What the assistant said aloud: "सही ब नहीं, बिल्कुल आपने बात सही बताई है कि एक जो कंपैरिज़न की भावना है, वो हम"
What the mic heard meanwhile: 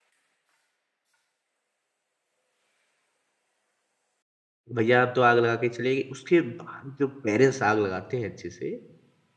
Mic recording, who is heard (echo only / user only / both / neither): user only